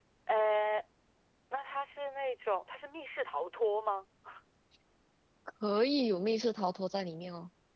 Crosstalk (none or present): none